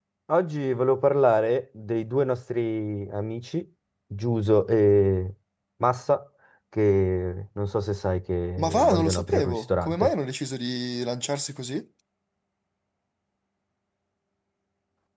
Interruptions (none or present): present